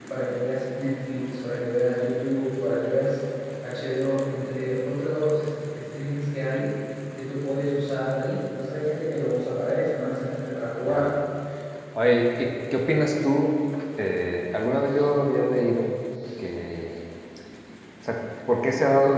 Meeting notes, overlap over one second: none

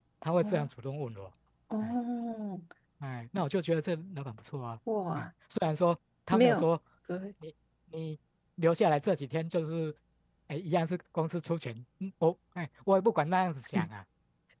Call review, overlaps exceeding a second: none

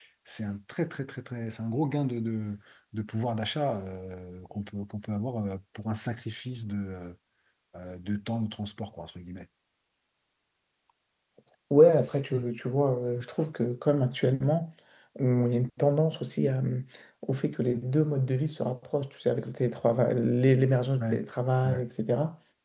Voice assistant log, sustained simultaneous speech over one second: none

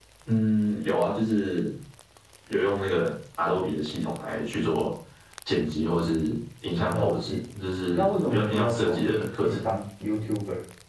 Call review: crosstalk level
present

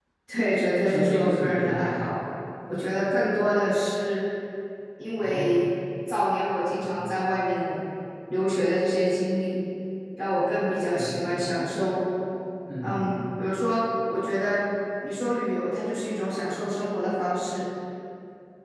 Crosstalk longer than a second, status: present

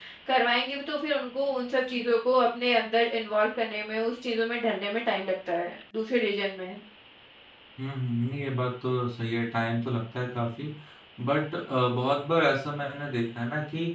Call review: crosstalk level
none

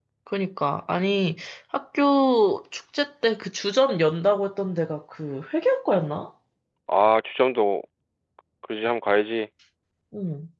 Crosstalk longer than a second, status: none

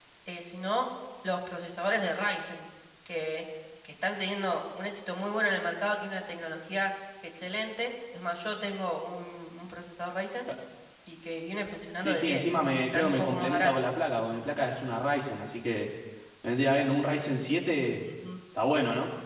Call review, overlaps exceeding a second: present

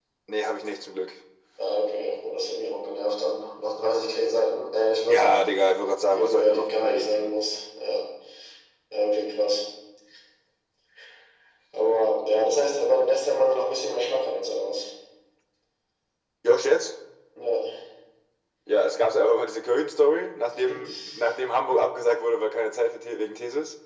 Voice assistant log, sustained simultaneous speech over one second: present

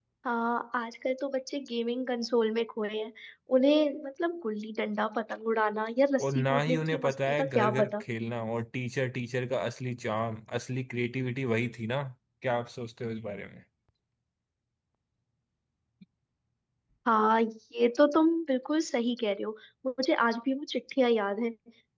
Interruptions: present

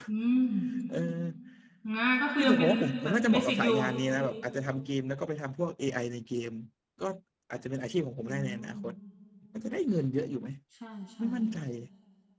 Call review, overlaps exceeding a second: present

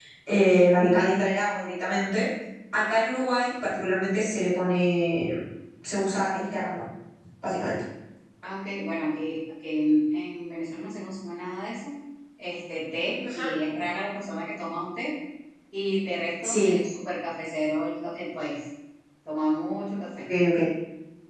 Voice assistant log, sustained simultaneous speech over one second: none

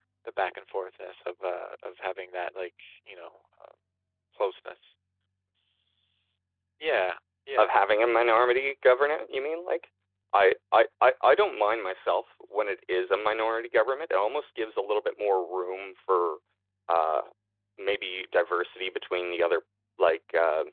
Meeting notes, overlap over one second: none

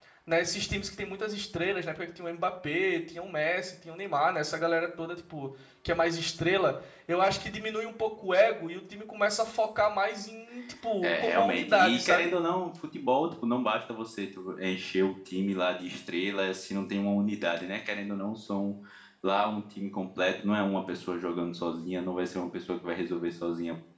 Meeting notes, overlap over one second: present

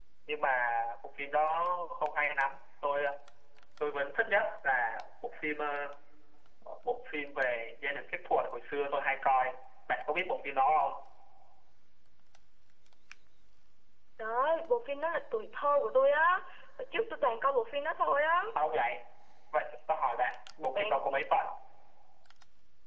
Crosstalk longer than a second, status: none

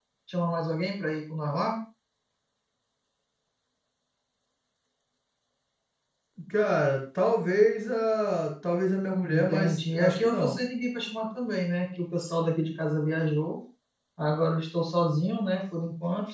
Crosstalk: present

